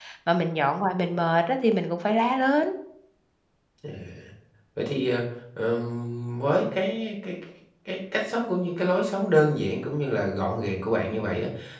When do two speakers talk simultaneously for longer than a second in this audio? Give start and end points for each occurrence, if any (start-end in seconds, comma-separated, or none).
none